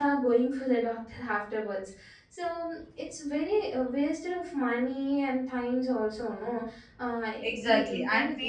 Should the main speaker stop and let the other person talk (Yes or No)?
Yes